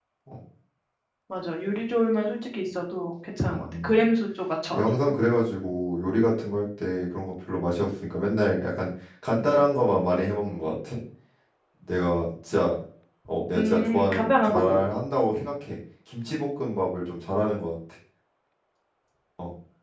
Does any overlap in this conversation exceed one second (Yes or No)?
Yes